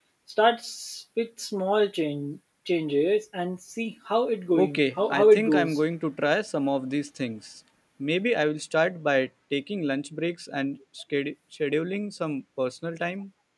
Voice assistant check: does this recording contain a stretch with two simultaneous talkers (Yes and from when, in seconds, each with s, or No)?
Yes, from 4.5 s